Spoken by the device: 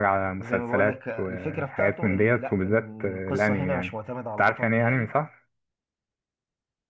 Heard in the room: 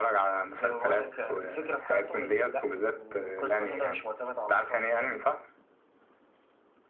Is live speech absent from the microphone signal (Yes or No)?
Yes